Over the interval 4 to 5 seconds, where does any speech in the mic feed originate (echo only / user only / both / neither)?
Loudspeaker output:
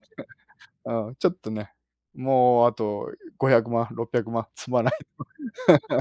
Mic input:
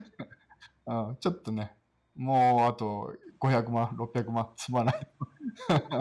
echo only